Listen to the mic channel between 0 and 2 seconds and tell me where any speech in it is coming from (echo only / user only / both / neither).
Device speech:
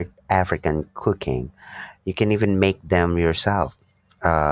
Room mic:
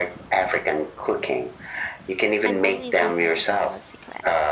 echo only